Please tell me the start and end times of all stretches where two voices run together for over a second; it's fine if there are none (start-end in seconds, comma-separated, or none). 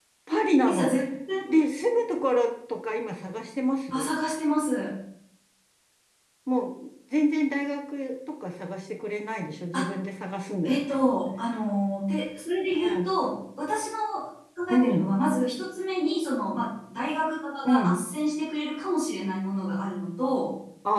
none